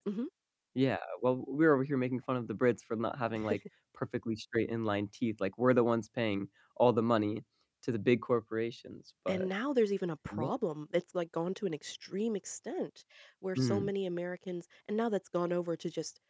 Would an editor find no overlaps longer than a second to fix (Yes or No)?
Yes